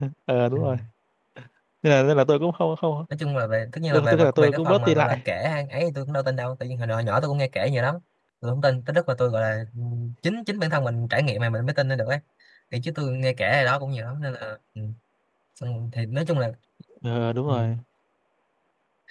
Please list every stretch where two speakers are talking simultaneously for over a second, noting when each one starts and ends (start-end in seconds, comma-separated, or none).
3.9-5.2